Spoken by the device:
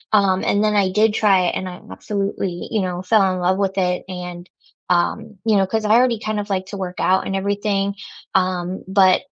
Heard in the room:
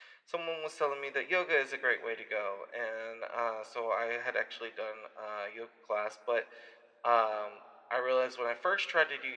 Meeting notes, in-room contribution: present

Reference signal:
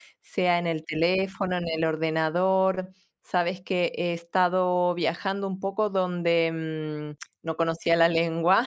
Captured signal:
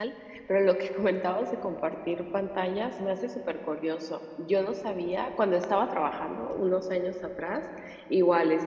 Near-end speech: present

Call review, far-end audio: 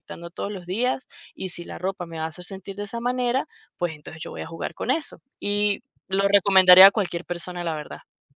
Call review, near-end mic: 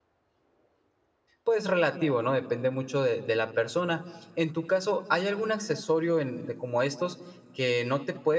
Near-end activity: present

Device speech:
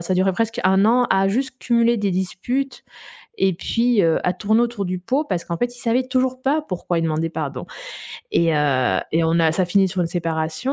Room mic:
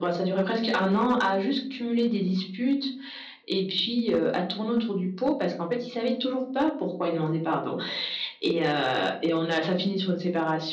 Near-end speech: none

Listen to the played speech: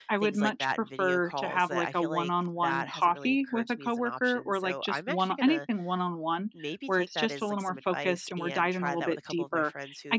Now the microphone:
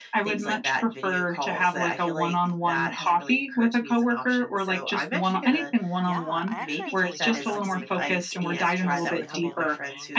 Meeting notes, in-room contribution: present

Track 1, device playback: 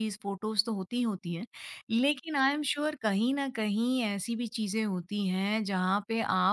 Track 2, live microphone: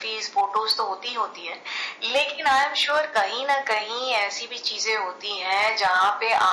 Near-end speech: none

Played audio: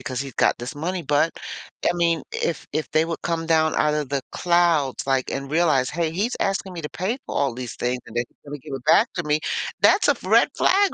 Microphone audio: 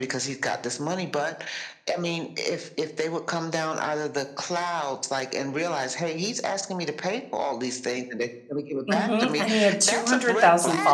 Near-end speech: present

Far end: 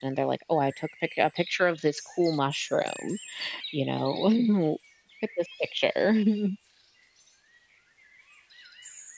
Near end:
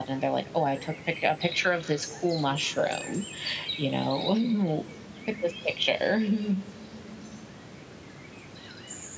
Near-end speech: none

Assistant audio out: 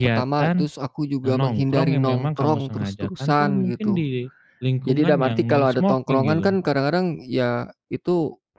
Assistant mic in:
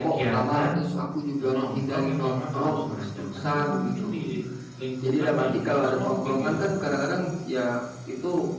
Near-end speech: none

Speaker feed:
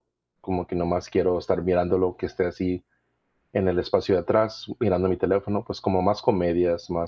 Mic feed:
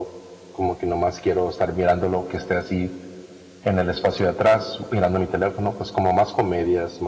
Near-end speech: none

